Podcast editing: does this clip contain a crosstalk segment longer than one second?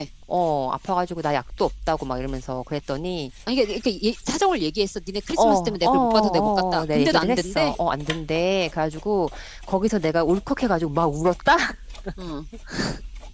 Yes, from 5.4 s

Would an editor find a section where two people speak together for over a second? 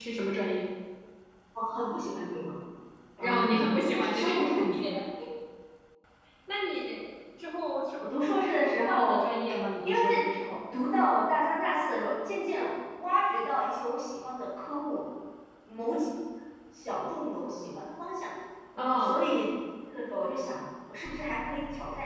Yes, from 3.2 s

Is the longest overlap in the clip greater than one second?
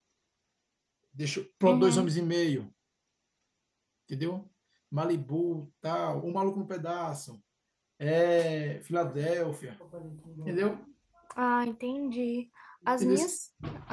No

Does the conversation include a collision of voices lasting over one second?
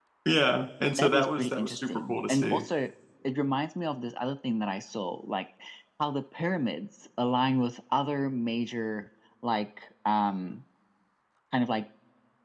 Yes, from 1.0 s

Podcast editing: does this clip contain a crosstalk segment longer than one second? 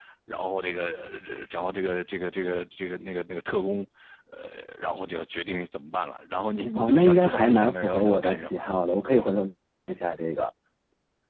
Yes, from 6.8 s

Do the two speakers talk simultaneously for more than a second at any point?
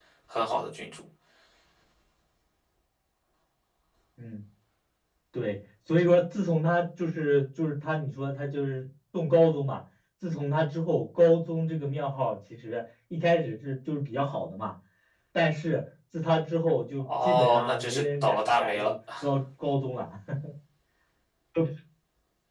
Yes, from 17.0 s

